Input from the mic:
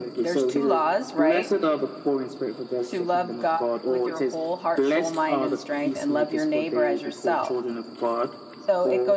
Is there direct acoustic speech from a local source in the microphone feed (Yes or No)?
Yes